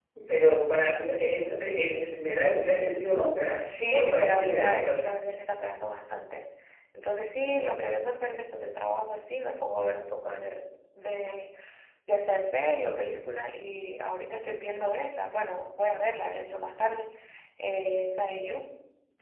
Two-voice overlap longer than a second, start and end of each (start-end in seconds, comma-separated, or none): 3.6-5.2